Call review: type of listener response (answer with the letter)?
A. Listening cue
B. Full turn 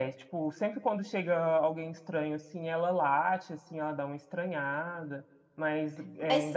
A